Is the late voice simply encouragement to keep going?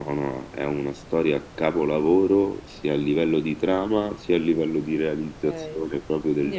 No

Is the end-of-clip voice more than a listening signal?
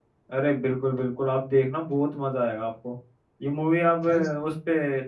No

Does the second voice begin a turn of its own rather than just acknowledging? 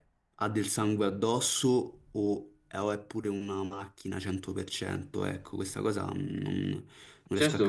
Yes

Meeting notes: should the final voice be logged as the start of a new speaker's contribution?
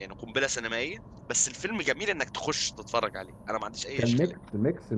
Yes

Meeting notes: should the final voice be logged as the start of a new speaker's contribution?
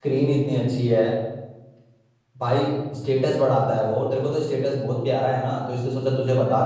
Yes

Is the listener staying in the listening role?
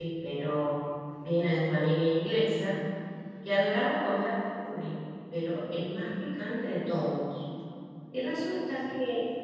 Yes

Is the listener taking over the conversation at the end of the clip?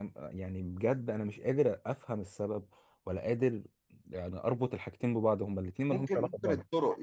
Yes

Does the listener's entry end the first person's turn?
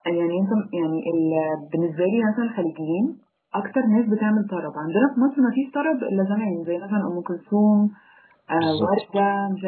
No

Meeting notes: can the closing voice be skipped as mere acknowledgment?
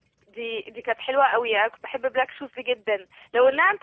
Yes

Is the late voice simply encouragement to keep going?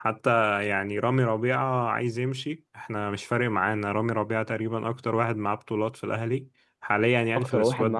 No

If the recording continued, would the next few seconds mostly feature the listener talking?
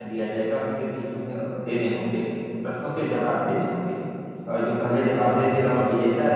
No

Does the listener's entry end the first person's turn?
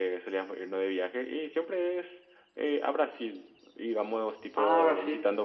No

